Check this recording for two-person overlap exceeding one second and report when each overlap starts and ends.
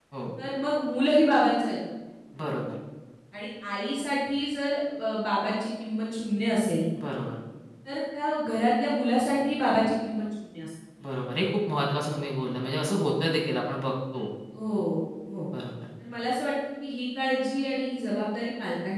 none

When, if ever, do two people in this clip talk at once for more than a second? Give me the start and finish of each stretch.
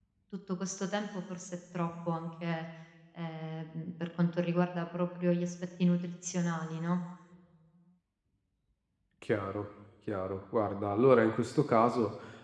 none

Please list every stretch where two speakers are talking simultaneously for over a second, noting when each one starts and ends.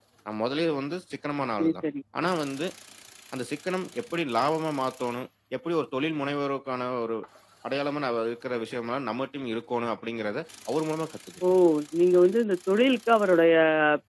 none

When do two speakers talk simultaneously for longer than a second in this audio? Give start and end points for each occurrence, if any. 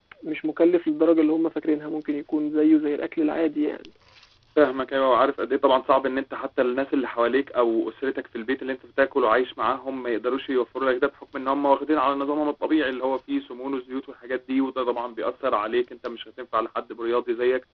none

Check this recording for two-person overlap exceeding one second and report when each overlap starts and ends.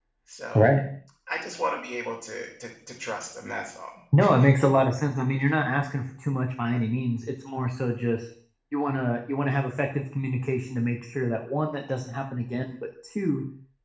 none

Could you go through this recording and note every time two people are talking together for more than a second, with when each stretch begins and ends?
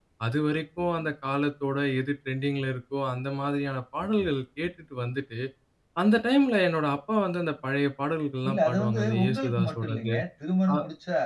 8.5-10.2

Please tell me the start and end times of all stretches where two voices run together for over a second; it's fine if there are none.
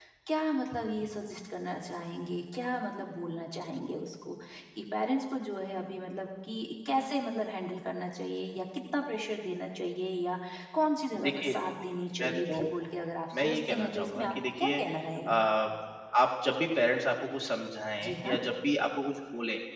13.4-14.7

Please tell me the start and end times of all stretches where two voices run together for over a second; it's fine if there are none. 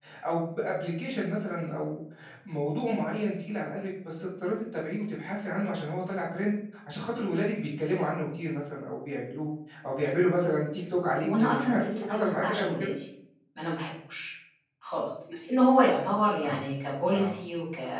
11.2-12.9

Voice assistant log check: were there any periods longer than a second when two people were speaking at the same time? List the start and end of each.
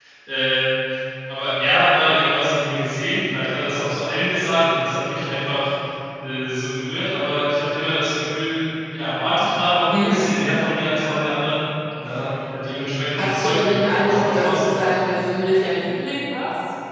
13.2-14.8

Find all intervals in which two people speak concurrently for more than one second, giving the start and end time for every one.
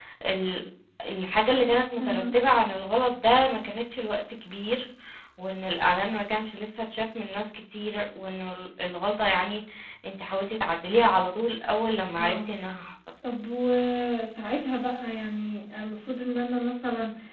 none

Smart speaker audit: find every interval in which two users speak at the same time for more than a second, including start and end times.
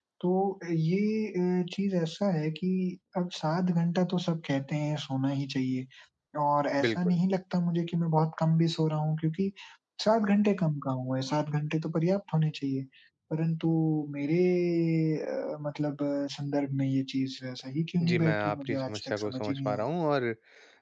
18.1-19.9

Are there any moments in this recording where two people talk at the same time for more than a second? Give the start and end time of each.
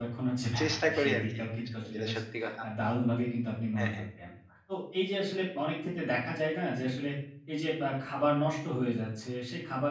0.6-2.2

